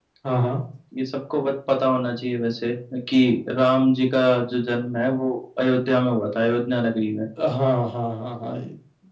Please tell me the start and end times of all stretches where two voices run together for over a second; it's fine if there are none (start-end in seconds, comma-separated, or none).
none